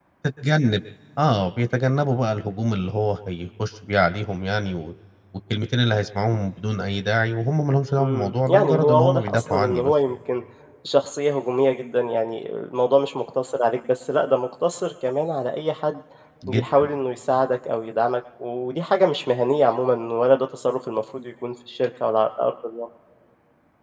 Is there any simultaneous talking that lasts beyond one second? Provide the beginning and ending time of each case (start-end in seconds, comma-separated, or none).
8.0-10.2